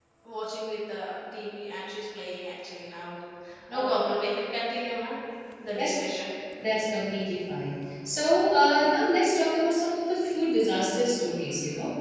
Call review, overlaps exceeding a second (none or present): none